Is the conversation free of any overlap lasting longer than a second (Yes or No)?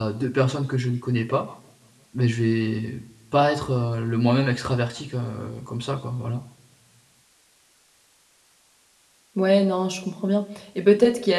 Yes